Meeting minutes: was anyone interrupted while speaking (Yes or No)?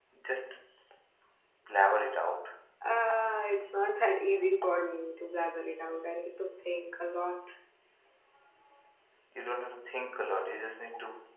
No